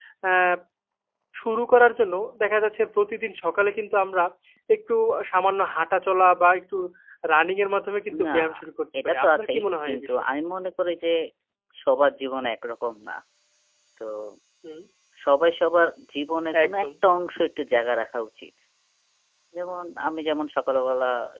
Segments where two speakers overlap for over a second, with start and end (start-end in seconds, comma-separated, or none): 9.0-10.2